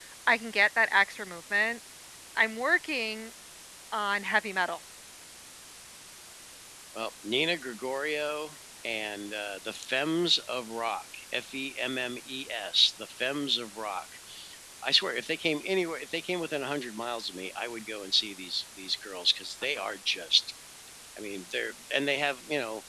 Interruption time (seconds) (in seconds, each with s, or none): none